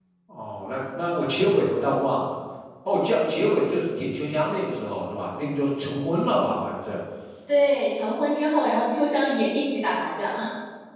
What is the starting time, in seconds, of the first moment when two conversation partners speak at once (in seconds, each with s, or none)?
none